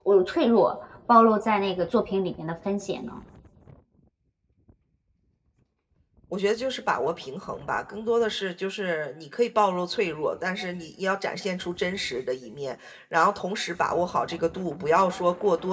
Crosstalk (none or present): none